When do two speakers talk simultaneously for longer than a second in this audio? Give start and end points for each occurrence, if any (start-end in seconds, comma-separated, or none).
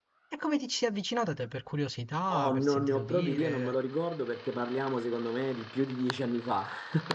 2.3-3.8